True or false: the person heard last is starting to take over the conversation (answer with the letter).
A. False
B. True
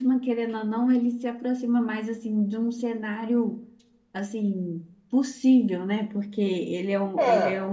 A